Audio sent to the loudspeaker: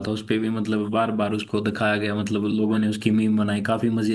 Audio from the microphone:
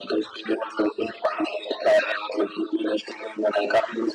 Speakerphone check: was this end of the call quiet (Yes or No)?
Yes